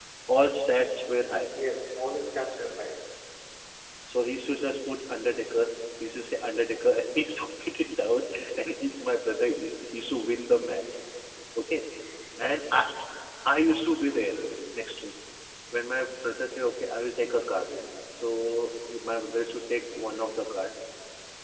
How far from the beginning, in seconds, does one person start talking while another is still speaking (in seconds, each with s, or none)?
none